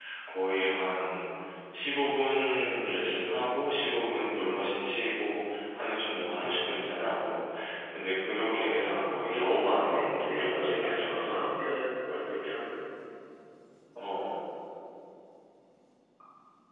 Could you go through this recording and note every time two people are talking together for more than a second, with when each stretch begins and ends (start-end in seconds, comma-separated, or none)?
8.4-11.5